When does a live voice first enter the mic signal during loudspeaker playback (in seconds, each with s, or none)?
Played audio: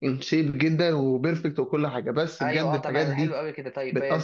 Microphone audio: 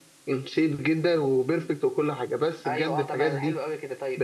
none